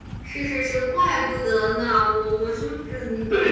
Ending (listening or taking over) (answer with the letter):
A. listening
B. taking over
B